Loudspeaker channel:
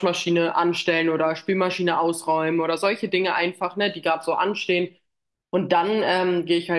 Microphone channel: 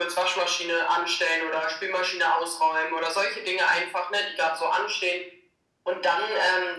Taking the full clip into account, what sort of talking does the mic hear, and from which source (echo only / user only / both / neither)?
echo only